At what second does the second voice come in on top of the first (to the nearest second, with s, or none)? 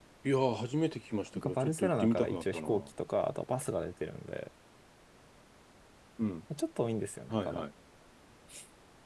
1 s